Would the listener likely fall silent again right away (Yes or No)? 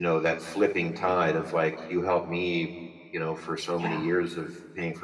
Yes